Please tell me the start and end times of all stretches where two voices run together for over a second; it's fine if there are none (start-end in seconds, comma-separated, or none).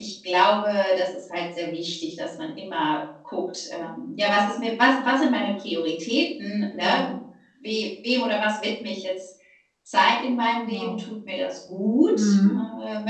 none